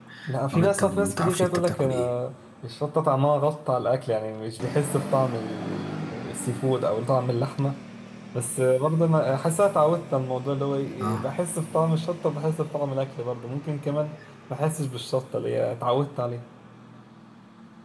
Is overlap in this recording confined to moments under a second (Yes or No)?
No